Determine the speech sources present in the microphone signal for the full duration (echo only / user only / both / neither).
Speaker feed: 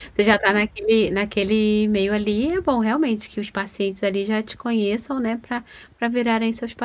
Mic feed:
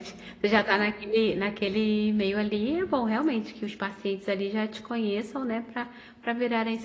echo only